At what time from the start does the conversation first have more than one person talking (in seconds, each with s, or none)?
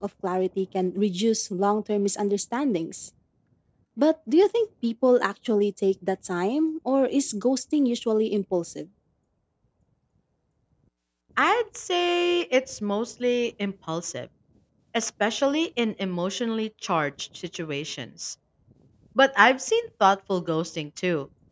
none